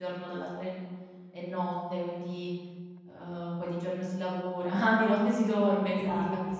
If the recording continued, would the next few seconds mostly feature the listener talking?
No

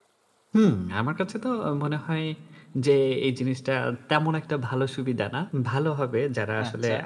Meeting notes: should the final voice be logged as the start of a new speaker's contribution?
No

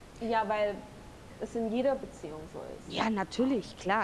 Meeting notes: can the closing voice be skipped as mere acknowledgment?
No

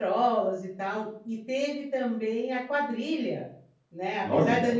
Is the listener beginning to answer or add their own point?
No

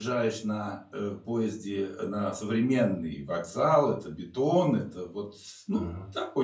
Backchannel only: Yes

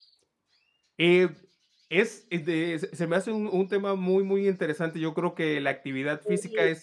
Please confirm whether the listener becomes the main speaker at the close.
No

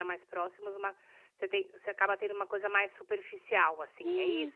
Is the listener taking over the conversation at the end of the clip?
Yes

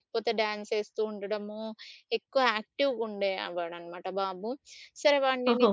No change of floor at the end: Yes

